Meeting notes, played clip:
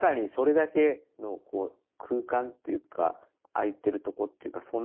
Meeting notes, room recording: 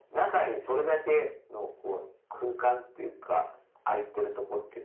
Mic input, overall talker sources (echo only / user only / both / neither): echo only